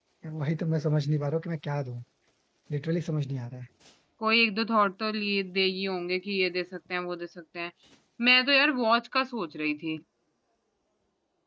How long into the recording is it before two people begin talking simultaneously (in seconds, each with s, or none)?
none